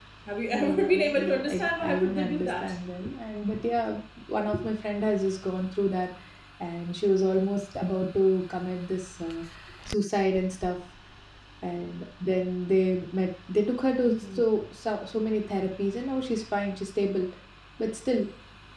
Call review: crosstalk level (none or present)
present